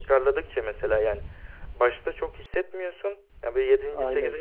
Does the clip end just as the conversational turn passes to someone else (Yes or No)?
No